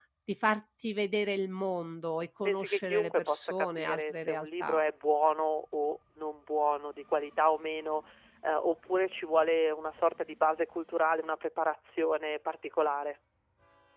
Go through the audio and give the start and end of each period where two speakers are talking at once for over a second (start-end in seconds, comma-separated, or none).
2.4-4.8